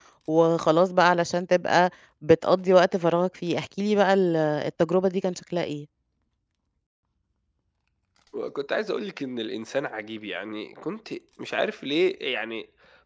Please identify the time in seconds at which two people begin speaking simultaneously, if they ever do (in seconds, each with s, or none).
none